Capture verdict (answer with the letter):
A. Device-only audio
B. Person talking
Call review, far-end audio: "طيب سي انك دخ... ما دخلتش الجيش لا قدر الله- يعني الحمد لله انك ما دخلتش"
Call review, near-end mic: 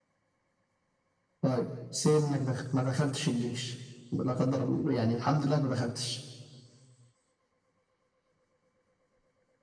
A